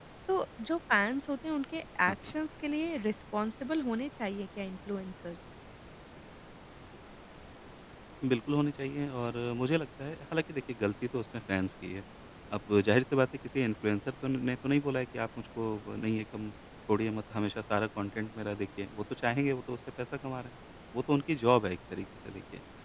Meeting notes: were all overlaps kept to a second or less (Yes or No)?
Yes